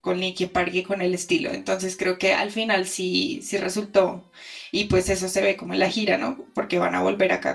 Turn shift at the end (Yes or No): No